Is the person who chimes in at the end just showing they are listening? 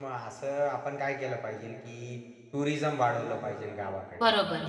Yes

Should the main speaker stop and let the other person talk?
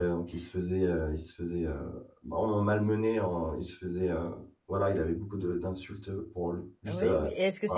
Yes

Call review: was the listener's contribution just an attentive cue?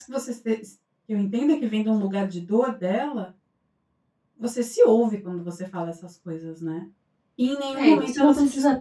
No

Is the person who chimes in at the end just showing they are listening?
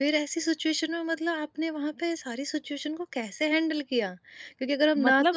Yes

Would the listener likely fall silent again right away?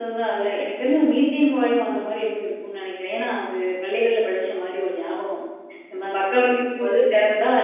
Yes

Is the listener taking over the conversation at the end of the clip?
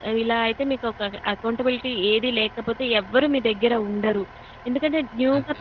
No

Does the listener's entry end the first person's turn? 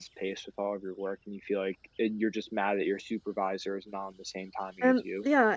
Yes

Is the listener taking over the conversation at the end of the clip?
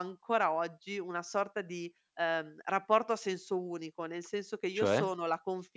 No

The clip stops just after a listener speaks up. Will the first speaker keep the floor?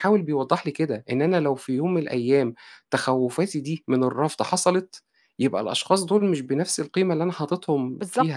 No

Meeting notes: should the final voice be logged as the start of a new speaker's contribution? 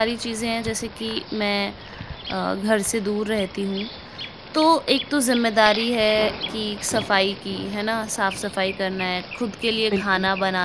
No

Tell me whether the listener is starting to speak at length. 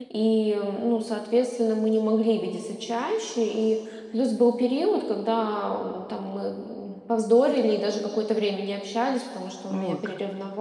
No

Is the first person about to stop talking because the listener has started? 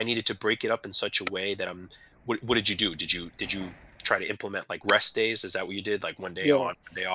Yes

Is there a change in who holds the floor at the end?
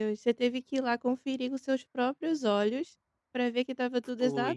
No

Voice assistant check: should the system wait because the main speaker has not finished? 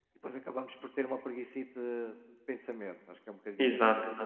Yes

